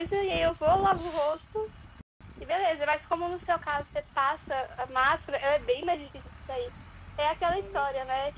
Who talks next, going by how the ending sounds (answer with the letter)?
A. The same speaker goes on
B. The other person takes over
A